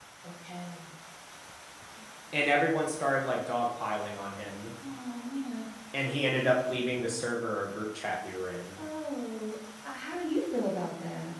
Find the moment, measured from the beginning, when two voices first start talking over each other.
none

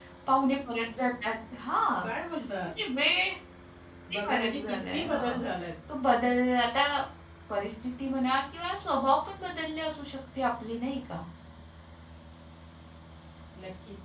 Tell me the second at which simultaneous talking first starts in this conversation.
4.1 s

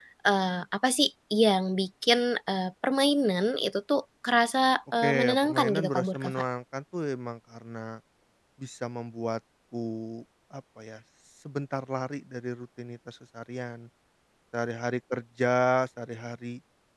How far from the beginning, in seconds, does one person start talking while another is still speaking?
5.0 s

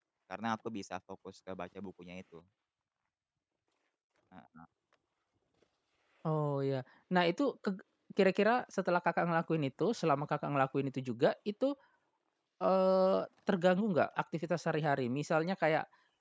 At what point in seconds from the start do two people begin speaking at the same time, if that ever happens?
none

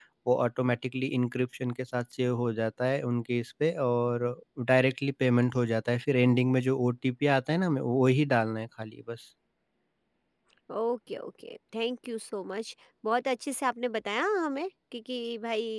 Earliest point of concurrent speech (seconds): none

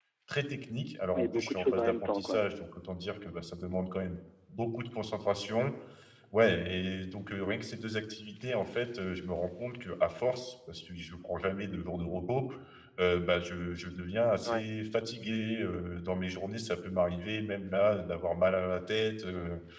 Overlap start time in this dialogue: 1.1 s

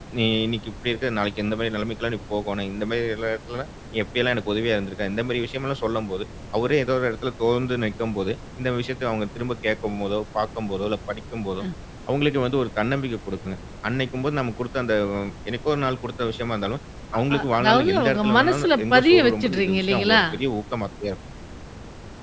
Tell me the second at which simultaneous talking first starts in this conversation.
17.1 s

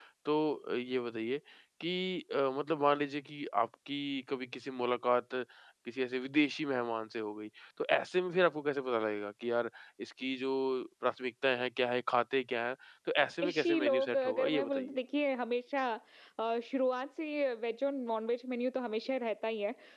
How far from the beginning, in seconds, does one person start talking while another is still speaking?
13.4 s

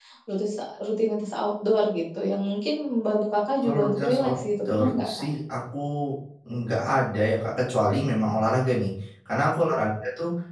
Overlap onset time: 3.6 s

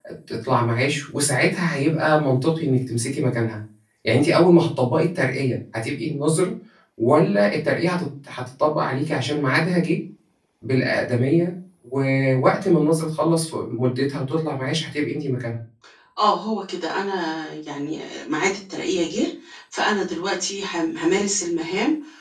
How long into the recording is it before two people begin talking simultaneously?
none

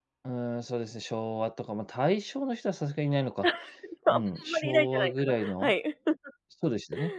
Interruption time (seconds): 4.1 s

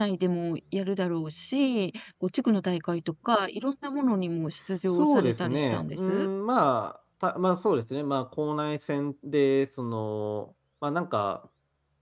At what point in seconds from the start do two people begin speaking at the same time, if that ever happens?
4.9 s

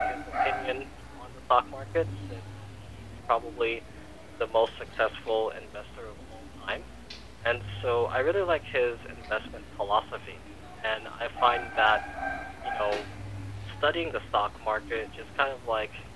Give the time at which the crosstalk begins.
none

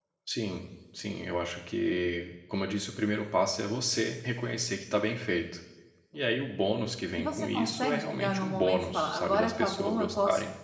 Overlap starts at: 7.2 s

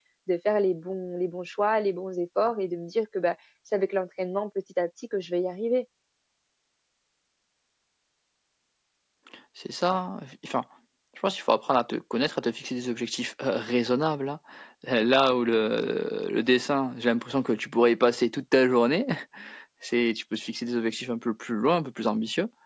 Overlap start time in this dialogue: none

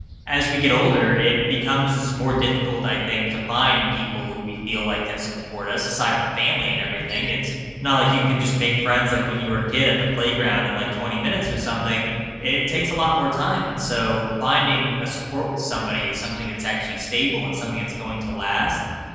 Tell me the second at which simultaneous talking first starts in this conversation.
none

